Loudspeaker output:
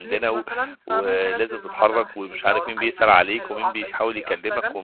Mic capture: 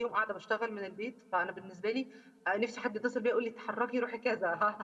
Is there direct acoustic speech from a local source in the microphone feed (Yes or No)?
Yes